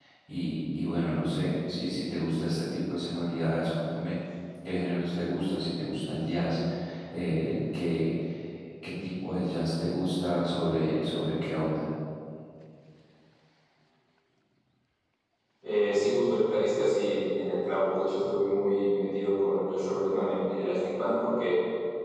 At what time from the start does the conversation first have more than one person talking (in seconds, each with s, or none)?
none